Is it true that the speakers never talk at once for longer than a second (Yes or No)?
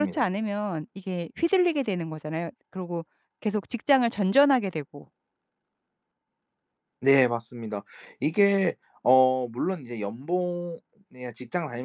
Yes